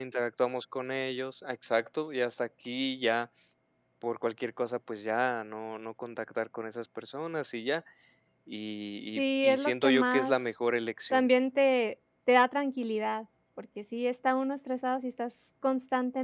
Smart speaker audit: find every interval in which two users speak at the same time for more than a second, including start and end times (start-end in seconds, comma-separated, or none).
9.2-10.4